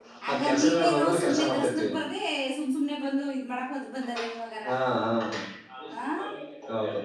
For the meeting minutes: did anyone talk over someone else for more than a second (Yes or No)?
Yes